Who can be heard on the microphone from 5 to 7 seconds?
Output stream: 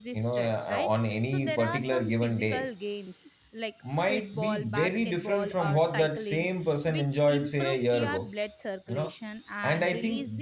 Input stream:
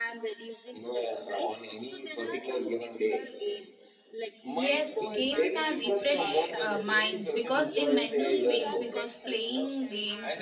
both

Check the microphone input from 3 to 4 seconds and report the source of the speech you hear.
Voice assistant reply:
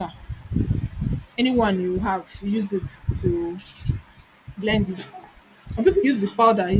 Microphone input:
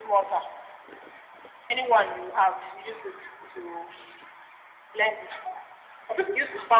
echo only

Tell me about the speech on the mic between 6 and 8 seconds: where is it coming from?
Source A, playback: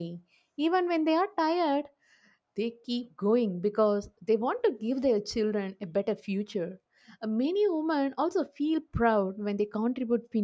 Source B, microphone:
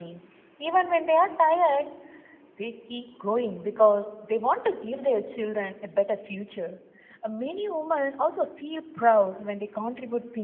echo only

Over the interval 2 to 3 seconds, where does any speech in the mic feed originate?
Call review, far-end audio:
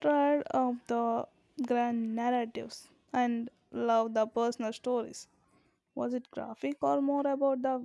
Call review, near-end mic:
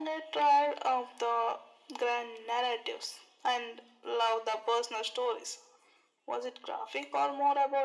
echo only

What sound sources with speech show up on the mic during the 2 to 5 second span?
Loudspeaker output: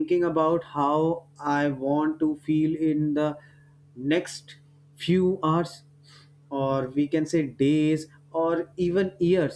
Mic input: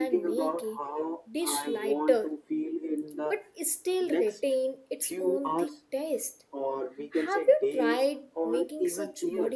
both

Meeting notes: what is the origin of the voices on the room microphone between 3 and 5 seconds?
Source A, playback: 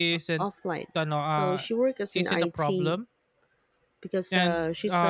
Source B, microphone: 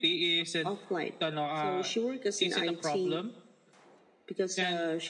echo only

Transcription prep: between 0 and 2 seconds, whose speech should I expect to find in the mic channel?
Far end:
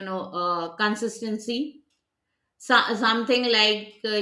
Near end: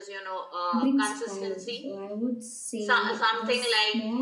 both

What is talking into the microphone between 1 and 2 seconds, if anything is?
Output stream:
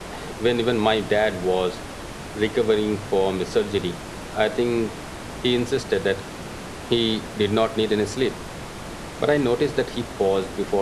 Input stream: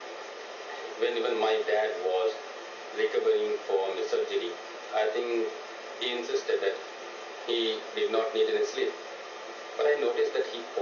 echo only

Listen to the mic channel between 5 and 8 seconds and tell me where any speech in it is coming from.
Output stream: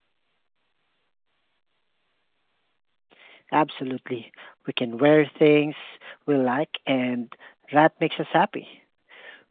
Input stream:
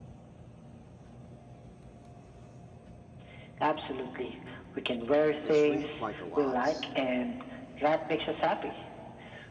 both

